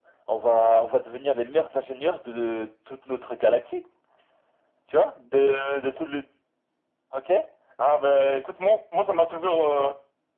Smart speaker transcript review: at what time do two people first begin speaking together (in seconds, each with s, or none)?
none